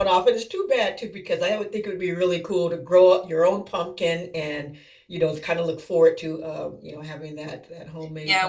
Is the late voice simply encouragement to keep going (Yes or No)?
No